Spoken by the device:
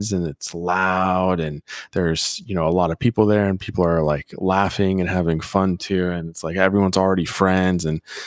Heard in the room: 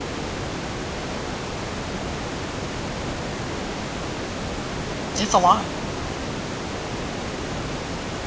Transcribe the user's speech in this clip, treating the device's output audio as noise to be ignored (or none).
it's a lot.